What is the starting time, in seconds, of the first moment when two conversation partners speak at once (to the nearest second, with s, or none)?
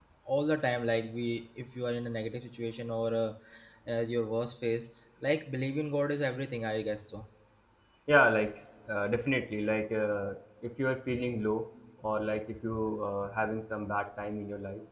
none